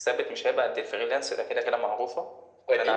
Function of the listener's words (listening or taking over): taking over